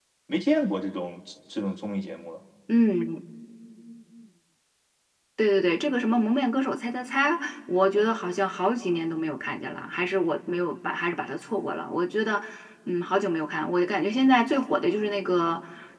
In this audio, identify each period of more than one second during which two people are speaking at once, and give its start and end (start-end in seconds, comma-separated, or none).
none